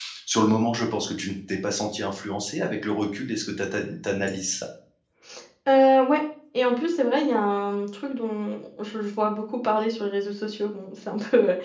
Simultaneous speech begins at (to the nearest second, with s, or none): none